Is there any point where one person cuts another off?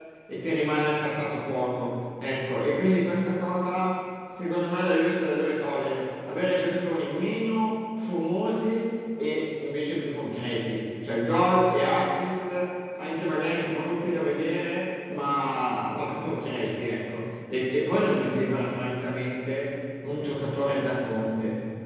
No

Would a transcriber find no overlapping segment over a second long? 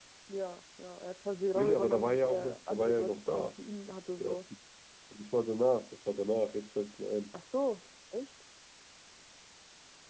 No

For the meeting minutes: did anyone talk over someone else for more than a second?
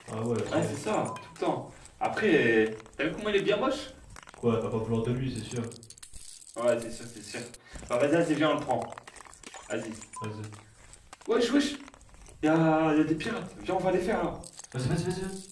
No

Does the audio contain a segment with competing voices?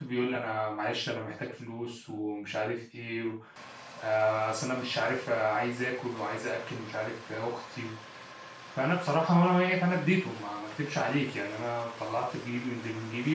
No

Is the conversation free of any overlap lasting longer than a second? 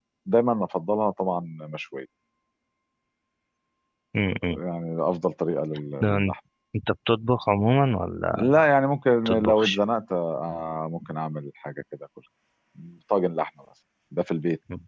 Yes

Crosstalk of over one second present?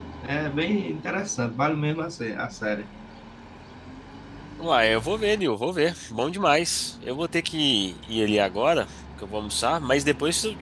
No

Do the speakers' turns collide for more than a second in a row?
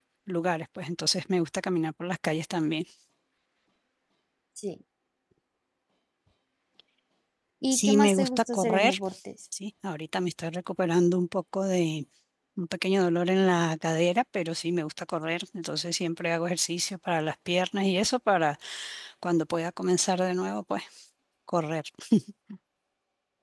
Yes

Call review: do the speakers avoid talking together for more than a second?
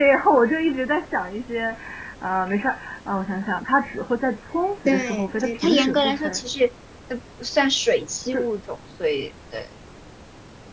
No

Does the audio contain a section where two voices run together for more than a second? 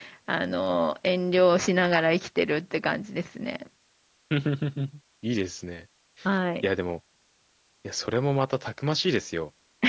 No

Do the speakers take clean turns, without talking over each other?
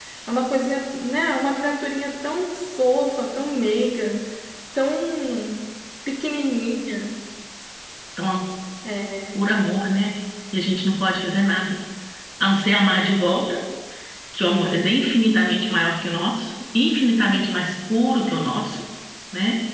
Yes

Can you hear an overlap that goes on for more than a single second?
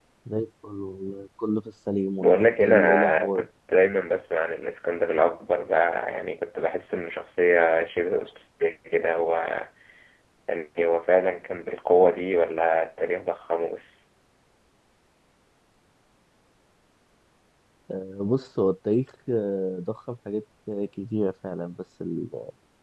Yes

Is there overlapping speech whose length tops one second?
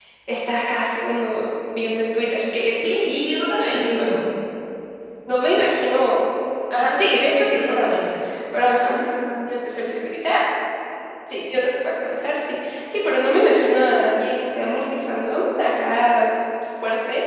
Yes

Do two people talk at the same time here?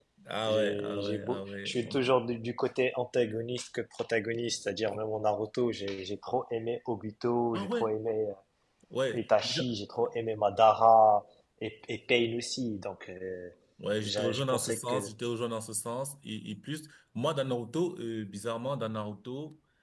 Yes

